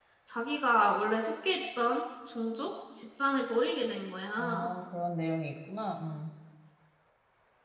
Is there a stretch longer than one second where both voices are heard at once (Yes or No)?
No